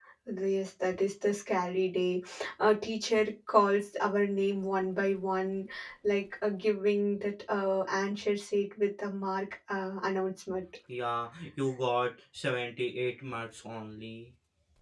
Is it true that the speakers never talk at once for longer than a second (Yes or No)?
Yes